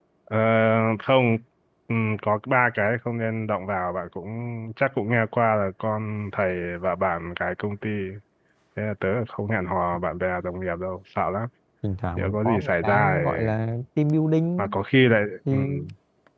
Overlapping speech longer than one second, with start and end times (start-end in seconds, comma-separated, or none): 12.2-13.5